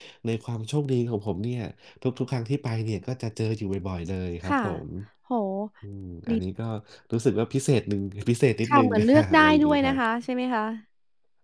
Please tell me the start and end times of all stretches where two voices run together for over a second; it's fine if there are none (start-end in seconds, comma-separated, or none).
8.7-10.0